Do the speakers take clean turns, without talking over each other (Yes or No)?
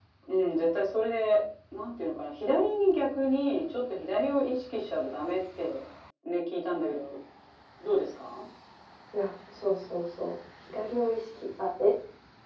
Yes